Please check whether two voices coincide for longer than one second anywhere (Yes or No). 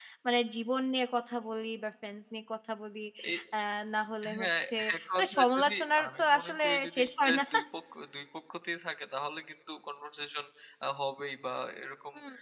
Yes